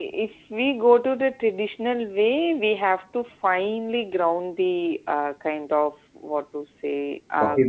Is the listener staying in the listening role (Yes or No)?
Yes